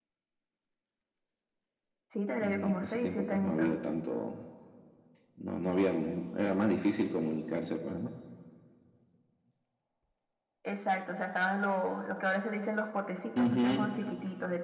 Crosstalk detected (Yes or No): Yes